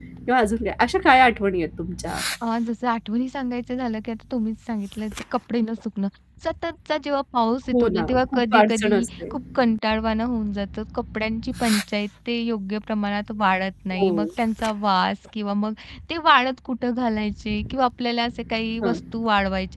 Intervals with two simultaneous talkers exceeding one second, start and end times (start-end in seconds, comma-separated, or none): 7.7-9.3